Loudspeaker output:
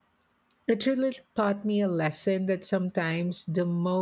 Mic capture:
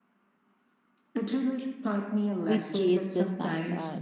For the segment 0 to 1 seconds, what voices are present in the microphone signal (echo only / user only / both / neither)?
neither